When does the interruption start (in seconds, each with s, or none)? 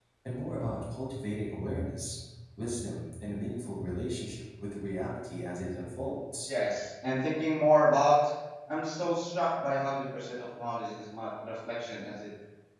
none